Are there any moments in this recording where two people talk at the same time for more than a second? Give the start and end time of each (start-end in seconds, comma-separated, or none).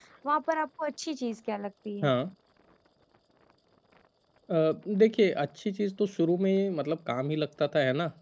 none